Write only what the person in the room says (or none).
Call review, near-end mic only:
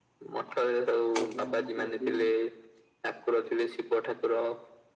ତାପରେ ମୁଁ କହି